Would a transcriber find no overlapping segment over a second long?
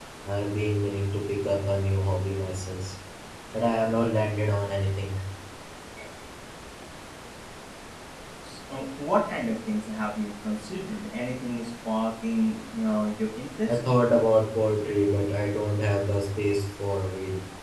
Yes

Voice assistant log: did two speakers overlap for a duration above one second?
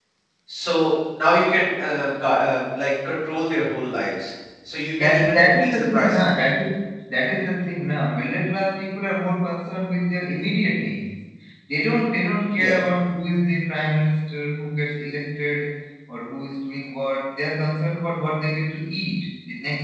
Yes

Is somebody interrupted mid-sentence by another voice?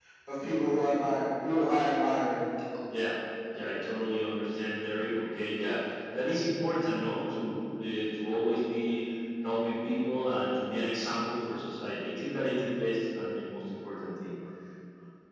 No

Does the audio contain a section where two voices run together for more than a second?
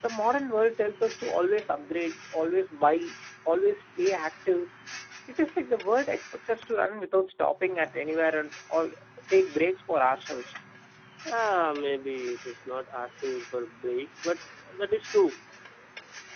No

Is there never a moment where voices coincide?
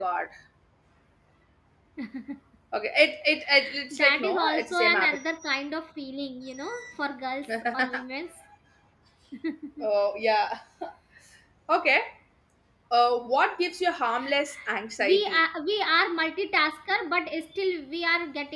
No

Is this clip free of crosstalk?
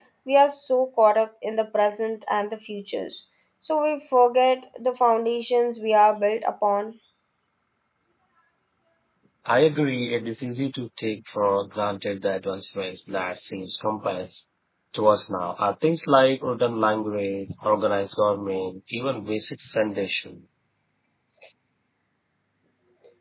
Yes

